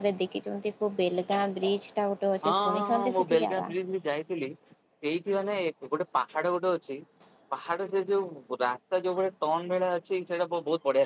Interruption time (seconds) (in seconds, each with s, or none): 2.4 s